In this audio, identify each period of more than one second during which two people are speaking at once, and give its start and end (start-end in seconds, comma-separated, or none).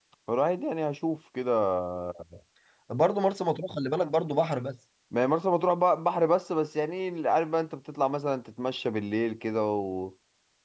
none